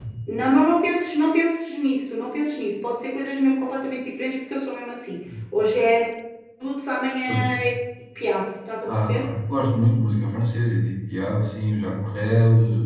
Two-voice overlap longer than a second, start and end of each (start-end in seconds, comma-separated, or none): none